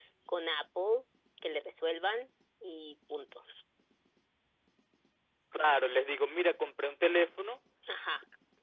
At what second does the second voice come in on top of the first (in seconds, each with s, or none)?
none